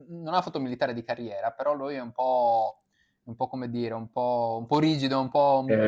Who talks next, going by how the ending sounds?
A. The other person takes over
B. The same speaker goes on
B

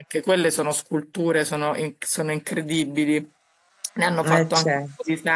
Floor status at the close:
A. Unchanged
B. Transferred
A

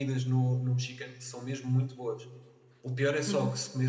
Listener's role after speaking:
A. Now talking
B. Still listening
B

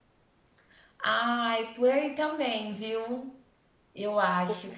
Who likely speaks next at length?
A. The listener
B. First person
B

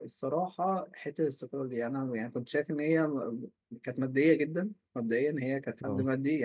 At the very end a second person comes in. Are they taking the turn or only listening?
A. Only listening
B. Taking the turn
A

